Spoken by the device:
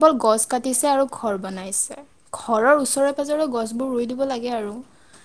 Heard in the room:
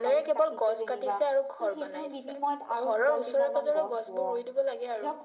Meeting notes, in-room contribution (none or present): present